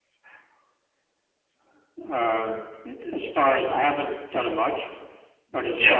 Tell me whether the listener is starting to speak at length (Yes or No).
No